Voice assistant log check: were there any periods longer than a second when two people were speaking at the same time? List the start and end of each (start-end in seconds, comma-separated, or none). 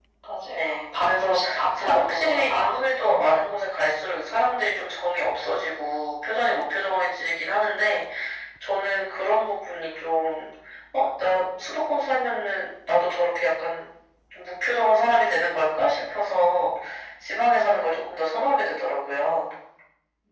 0.5-2.7